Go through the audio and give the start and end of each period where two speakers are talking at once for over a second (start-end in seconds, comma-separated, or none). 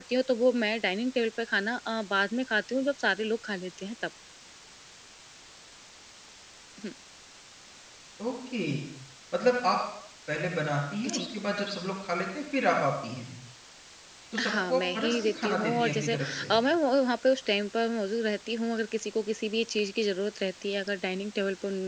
14.4-16.5